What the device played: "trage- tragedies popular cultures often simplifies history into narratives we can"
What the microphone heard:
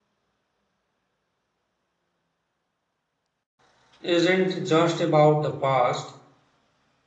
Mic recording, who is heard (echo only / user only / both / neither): user only